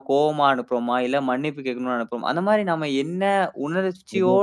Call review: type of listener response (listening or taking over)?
listening